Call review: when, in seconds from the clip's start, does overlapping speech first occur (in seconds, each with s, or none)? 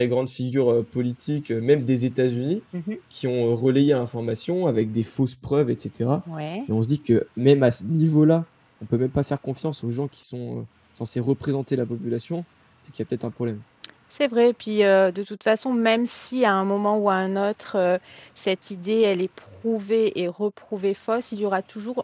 none